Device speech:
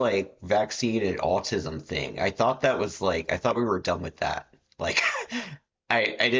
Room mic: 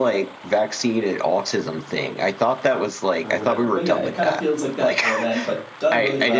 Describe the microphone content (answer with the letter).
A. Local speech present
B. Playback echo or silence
A